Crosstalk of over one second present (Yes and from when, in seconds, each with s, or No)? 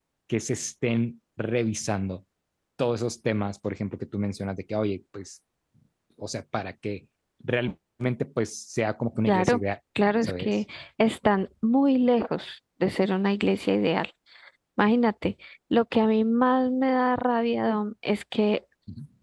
No